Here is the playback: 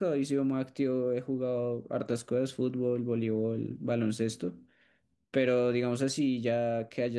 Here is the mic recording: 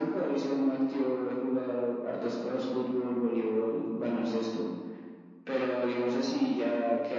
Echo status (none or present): present